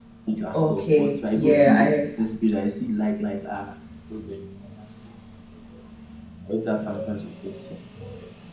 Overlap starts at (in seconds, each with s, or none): 0.5 s